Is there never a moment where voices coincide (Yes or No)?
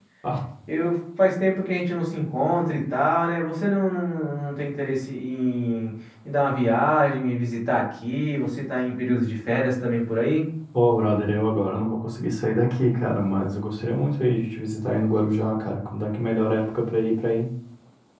Yes